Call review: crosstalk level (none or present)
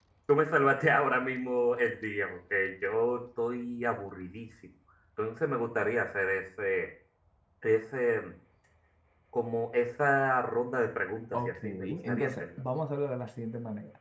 present